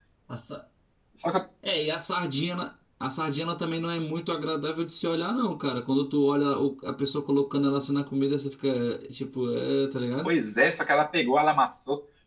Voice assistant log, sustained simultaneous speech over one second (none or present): none